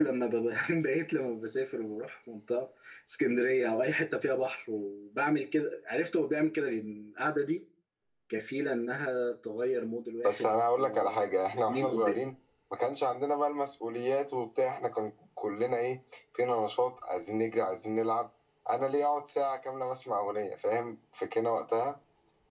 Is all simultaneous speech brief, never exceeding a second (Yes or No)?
No